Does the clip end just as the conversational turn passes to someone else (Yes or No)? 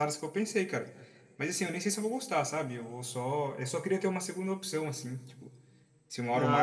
No